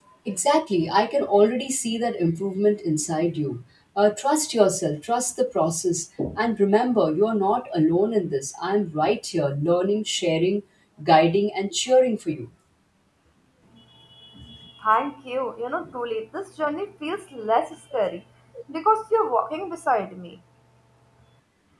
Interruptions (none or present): none